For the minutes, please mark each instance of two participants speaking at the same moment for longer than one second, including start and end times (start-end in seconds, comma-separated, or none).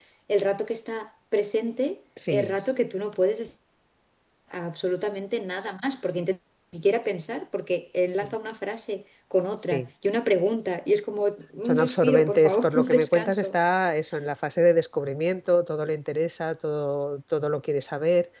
11.7-13.5